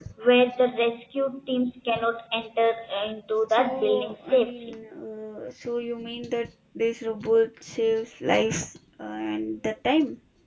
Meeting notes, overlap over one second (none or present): present